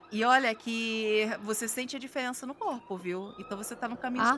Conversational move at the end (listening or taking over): taking over